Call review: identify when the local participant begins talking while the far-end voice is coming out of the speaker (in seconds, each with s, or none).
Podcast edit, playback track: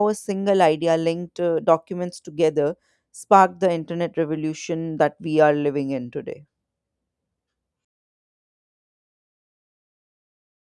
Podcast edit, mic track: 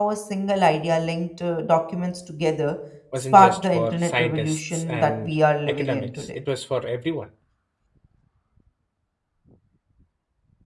3.1 s